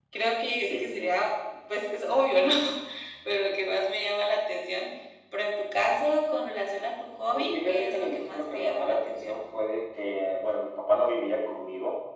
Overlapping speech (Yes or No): Yes